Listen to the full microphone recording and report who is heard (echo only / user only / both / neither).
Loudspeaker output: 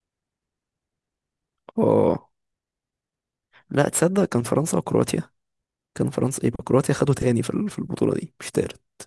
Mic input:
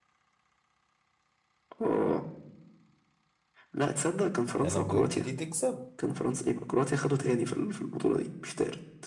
both